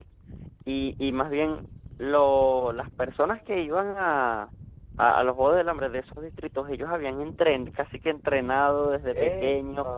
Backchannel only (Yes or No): Yes